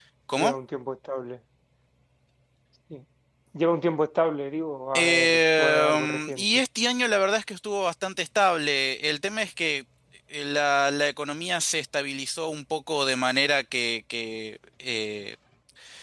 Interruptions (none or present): present